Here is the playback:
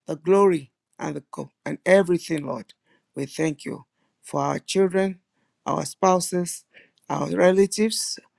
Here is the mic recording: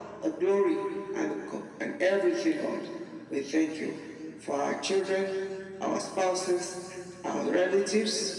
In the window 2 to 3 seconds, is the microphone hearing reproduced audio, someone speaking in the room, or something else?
echo only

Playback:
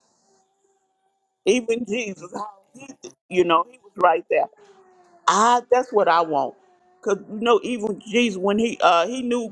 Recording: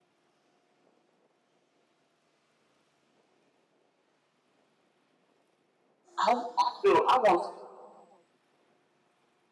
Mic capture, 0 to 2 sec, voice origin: neither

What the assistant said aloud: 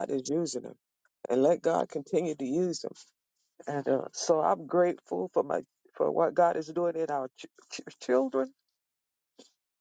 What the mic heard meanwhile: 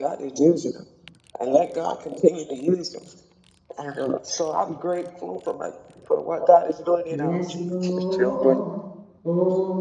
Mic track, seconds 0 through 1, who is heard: echo only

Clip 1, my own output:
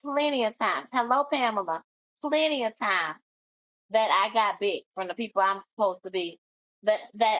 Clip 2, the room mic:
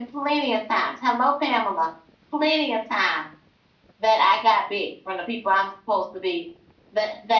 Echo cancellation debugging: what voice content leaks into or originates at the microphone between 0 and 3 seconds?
echo only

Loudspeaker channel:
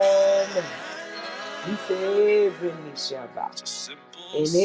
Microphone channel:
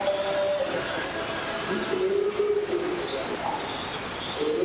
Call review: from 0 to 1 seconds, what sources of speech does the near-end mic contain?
echo only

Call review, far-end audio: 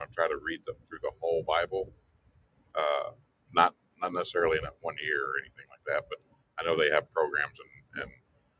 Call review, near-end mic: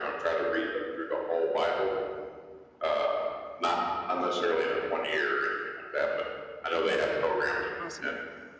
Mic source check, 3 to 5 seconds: echo only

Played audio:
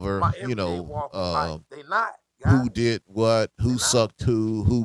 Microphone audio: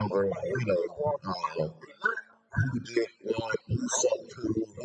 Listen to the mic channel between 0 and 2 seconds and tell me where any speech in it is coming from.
echo only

